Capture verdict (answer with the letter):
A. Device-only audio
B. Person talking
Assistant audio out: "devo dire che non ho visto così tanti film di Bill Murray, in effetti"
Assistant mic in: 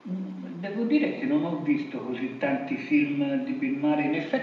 A